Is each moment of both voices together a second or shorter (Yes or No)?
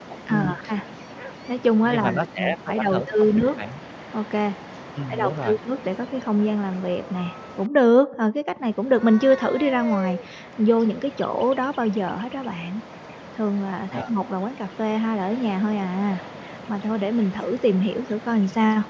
No